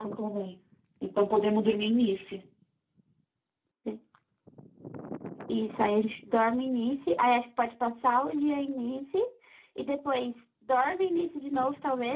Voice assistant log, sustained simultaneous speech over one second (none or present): none